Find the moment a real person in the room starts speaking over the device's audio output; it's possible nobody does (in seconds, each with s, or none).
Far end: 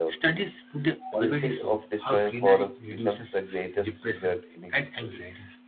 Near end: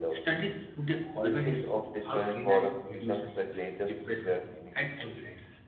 none